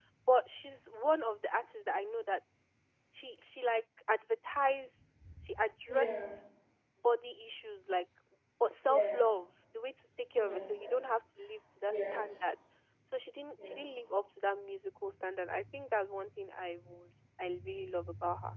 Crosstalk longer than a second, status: none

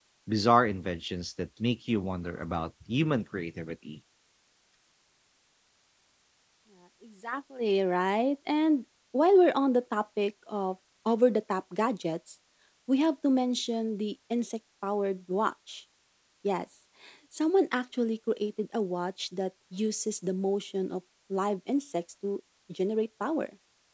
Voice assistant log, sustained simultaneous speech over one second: none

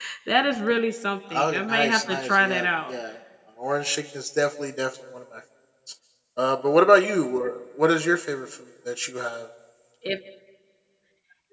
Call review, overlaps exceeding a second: present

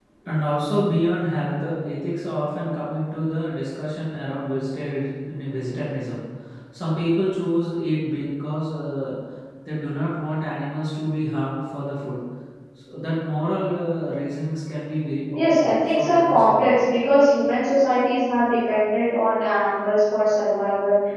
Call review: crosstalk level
present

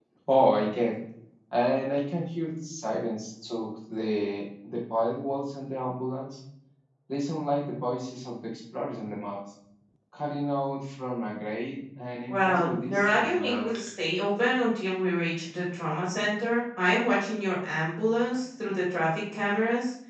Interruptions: present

